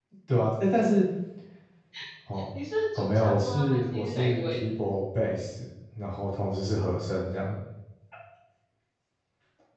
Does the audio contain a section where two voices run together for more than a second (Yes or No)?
Yes